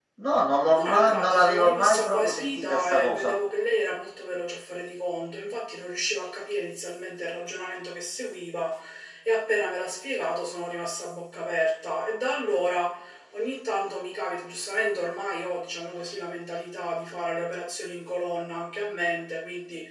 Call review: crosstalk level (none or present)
present